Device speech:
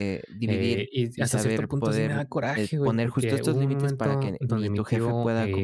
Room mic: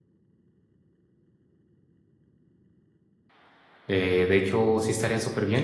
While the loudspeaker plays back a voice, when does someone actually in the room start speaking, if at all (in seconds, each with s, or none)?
3.9 s